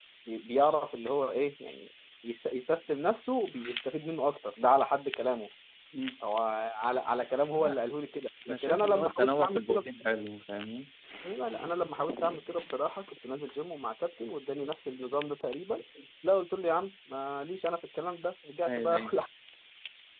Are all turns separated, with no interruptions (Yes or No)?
No